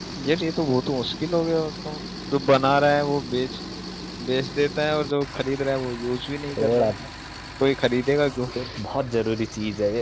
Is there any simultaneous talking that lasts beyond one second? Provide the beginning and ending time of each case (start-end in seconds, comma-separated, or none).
none